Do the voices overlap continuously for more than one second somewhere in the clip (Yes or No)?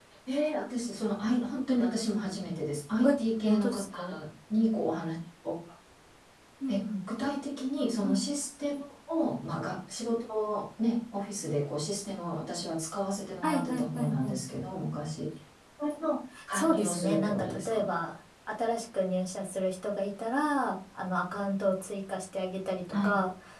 Yes